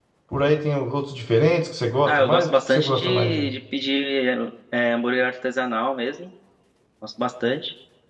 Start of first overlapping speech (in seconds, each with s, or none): 2.0 s